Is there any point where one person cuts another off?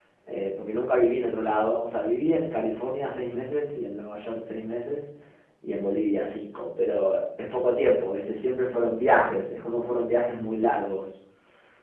No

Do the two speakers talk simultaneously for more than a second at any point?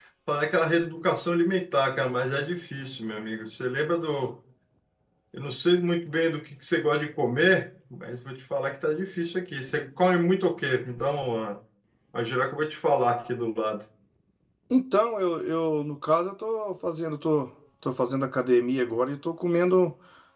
No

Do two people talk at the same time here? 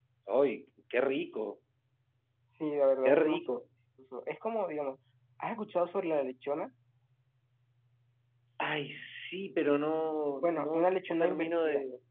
Yes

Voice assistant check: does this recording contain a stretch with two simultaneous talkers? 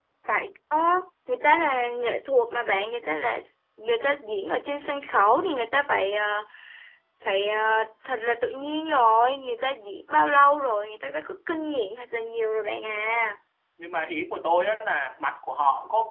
No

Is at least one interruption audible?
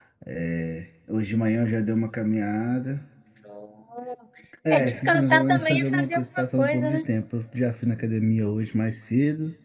Yes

